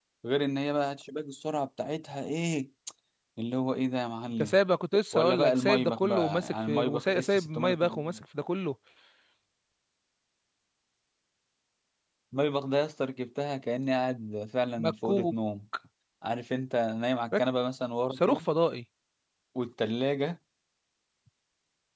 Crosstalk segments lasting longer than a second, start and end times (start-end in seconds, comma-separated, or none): 5.1-8.2